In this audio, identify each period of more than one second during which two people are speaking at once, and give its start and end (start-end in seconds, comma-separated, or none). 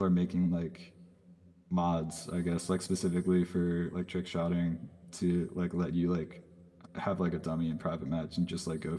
none